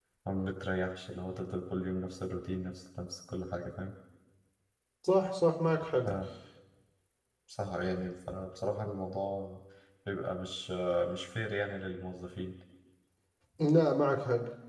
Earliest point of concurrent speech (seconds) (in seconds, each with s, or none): none